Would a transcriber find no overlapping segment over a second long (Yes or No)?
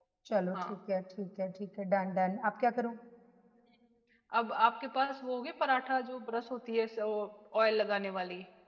Yes